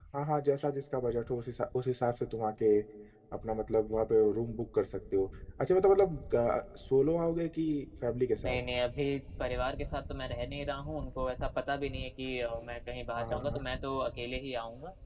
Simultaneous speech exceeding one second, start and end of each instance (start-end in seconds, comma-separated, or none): none